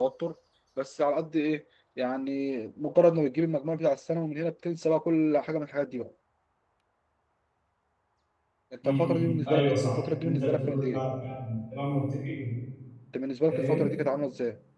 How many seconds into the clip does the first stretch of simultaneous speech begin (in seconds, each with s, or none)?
8.9 s